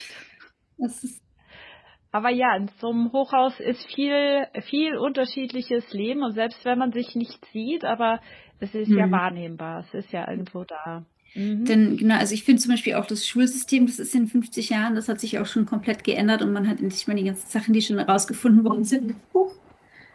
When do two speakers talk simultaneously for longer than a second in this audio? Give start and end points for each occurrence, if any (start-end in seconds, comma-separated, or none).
none